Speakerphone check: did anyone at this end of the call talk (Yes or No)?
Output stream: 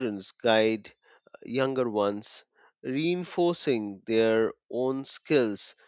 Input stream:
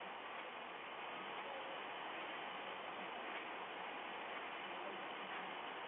No